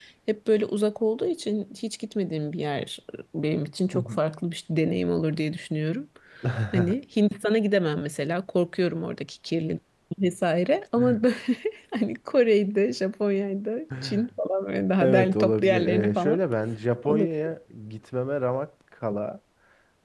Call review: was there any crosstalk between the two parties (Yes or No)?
Yes